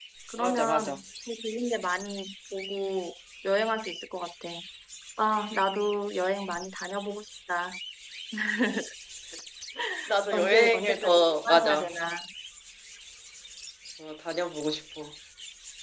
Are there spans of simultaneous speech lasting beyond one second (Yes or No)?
Yes